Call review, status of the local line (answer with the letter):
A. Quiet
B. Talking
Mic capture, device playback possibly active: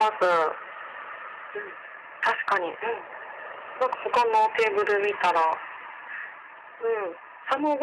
A